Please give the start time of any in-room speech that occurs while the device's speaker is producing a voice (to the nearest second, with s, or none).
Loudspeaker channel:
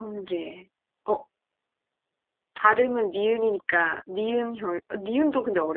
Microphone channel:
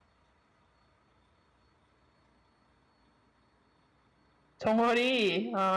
5 s